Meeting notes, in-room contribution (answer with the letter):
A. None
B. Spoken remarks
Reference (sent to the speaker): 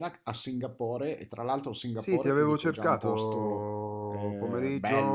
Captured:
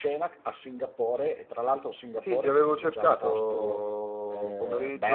A